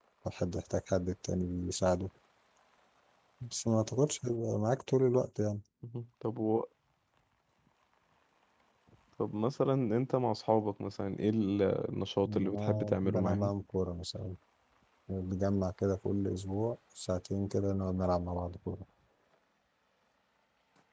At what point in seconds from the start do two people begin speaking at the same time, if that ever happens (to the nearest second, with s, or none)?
12 s